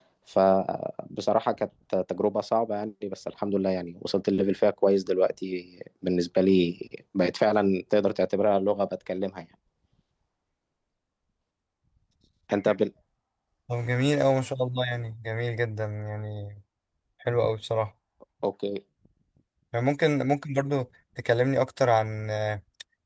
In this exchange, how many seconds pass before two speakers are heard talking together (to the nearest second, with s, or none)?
none